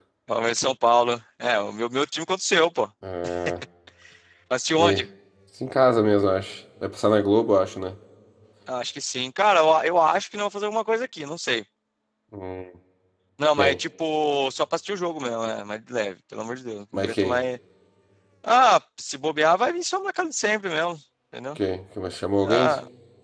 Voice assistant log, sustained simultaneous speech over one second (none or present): none